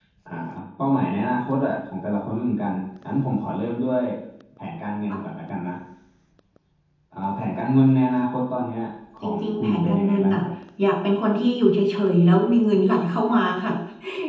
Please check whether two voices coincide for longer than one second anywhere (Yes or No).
Yes